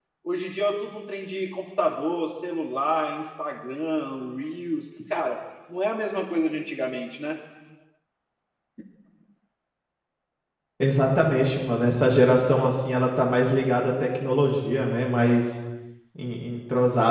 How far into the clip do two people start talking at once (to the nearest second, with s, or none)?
none